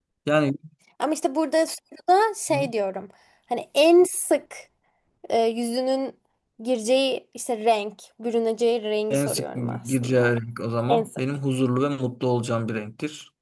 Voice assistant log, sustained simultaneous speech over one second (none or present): present